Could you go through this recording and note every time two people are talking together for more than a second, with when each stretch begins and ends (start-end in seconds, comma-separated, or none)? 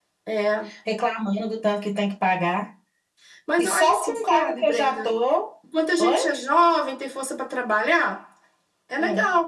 3.6-5.1